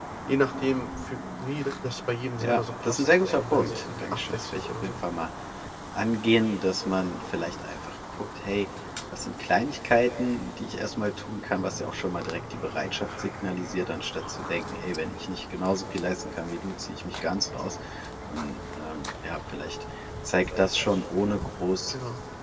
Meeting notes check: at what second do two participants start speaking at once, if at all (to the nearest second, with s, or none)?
2 s